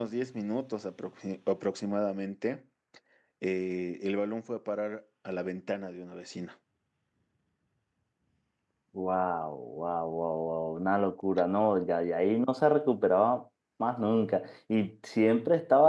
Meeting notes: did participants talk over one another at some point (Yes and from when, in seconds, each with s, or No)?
No